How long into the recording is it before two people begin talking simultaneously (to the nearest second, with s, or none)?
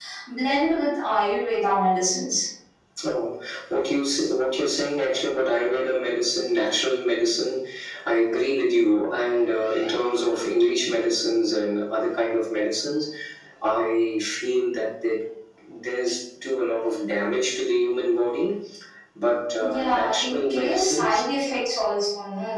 20 s